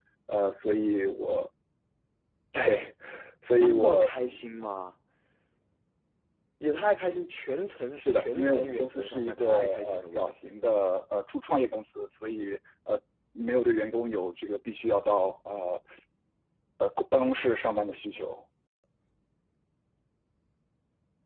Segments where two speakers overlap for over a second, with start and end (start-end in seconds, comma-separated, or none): 8.0-10.2